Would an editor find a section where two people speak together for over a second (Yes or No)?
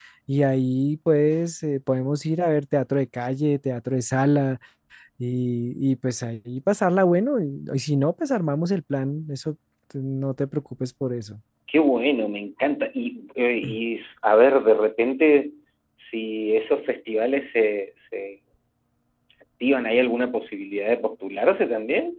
No